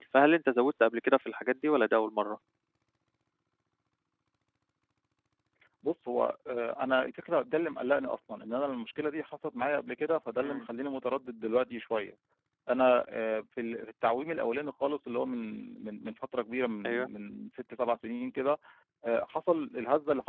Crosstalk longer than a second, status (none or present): none